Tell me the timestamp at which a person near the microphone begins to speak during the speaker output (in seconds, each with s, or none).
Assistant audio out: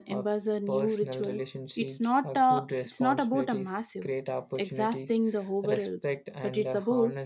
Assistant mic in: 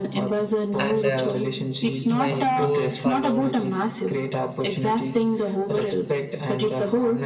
0.8 s